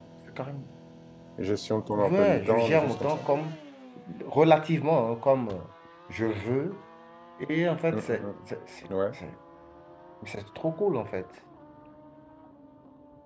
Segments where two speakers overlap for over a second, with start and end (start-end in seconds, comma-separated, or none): 2.0-3.2